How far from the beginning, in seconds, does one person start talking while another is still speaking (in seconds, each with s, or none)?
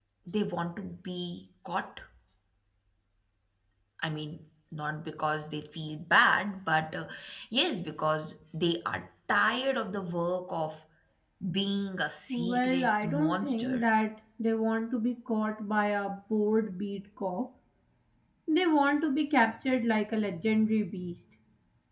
12.3 s